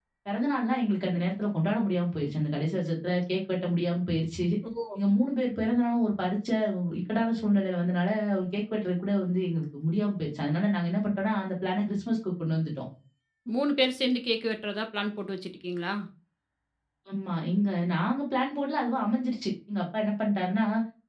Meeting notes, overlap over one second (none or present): none